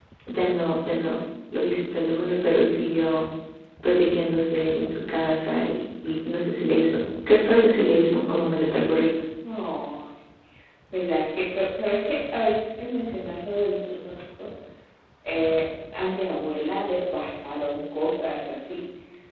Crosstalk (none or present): none